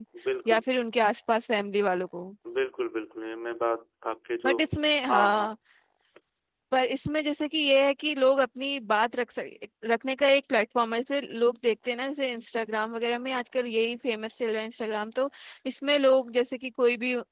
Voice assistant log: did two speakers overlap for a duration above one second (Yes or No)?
No